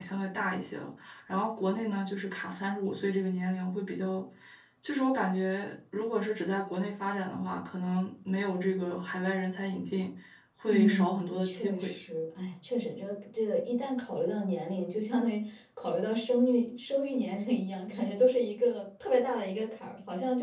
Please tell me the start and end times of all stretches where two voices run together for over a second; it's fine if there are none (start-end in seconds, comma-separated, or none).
10.7-11.9